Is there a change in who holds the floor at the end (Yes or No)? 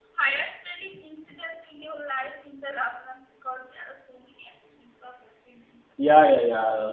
Yes